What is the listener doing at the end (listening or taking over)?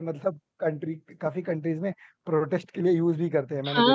taking over